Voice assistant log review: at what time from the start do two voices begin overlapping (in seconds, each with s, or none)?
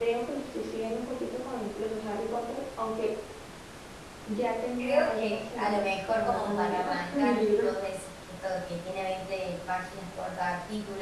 4.8 s